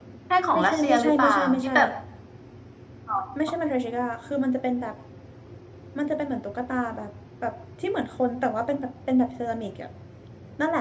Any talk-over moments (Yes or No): Yes